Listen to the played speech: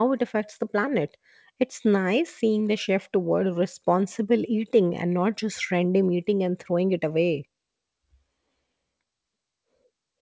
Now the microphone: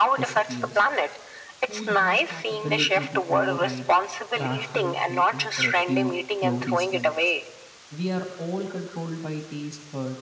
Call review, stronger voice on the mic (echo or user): echo